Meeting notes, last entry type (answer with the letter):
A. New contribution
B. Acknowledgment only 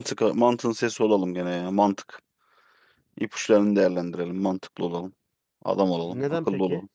A